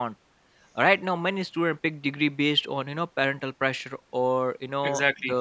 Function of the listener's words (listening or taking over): listening